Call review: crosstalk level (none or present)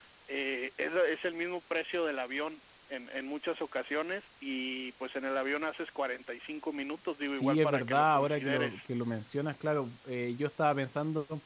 present